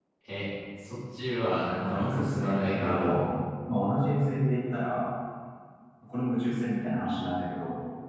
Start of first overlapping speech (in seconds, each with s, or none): 1.7 s